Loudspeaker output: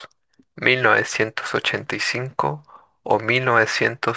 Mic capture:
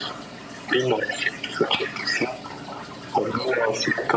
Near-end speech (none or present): none